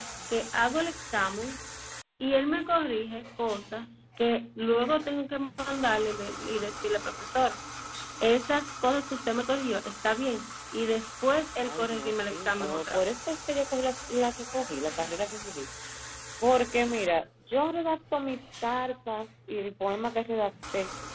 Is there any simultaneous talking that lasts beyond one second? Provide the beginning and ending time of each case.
11.6-13.3

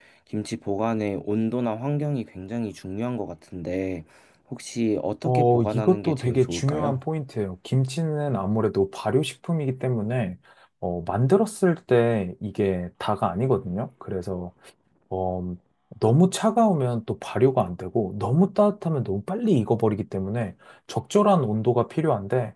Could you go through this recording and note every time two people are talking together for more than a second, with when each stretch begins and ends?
5.2-7.0

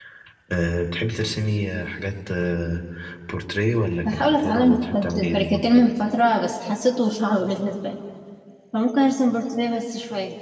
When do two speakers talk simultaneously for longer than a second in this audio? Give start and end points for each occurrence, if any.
4.0-5.6

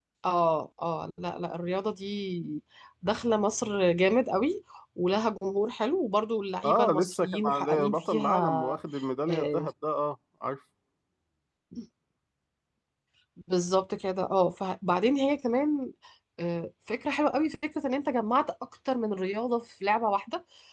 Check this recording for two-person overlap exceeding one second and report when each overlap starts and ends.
6.6-8.8

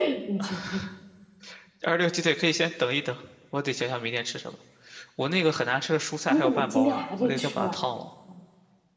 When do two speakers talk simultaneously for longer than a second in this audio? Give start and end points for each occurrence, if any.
6.3-7.8

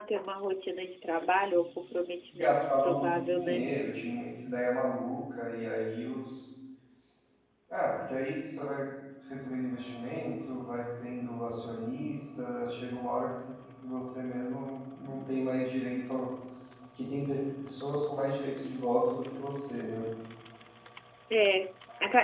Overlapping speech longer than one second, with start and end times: 2.4-3.7

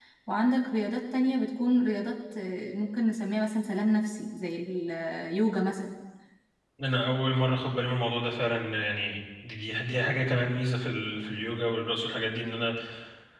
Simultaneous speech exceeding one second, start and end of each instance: none

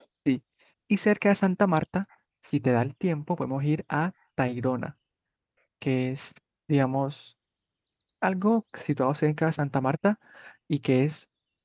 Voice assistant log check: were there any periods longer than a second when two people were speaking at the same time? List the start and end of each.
none

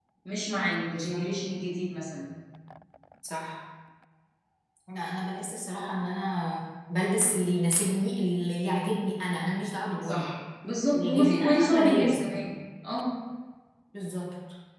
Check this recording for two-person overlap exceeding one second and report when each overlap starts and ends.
10.9-12.2

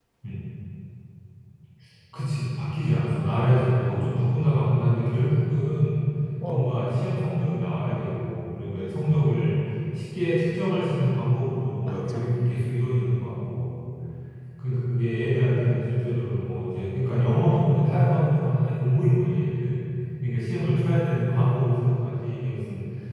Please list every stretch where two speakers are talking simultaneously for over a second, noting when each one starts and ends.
none

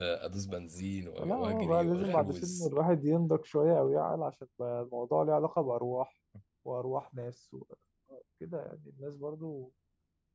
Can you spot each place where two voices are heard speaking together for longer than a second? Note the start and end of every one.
1.2-2.7

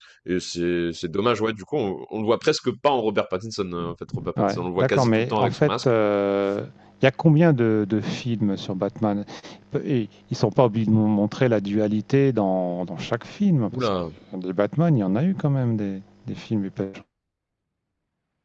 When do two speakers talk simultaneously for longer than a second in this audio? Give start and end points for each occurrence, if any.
4.4-5.9

